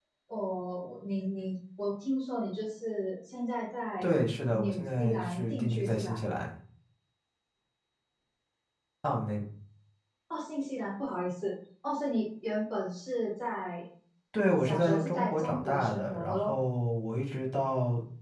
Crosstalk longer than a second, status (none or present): present